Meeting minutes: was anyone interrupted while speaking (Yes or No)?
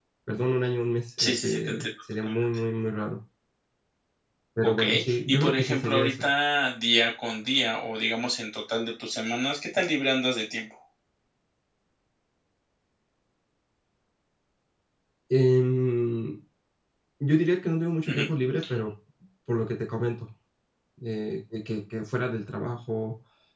Yes